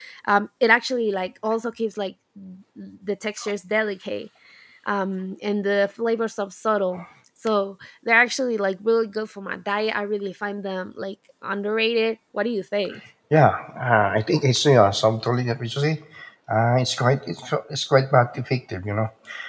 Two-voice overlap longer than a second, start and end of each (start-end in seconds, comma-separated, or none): none